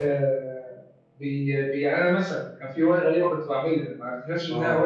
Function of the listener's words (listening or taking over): listening